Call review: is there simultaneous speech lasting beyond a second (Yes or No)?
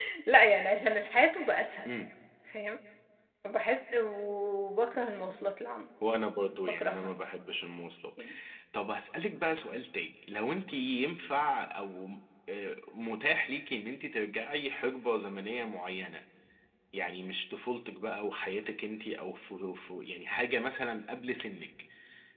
No